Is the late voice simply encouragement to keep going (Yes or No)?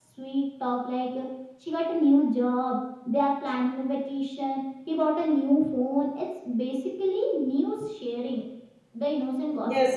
No